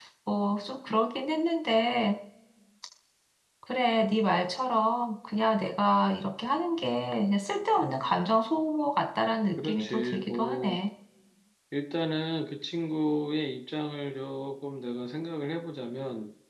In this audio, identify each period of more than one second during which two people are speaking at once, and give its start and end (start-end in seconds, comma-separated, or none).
9.6-10.8